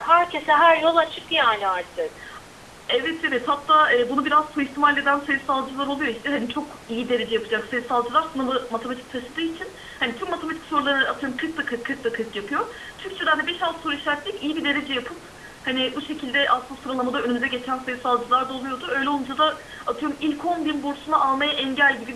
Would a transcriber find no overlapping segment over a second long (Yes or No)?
Yes